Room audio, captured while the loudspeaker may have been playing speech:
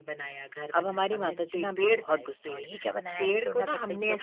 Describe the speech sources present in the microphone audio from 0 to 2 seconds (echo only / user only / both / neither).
both